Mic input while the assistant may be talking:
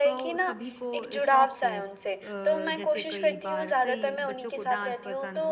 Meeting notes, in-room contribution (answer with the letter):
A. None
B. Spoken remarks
B